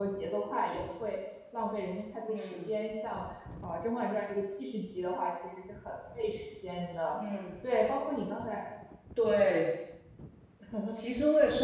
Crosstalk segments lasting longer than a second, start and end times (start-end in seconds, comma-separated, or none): none